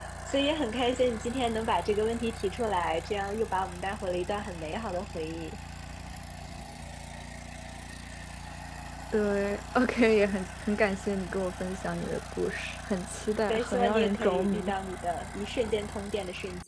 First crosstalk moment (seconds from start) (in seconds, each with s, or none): 13.5 s